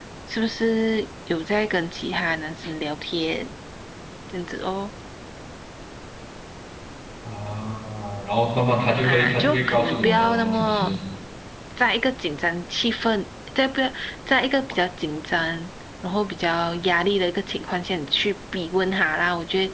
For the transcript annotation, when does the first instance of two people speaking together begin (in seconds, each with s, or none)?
9.0 s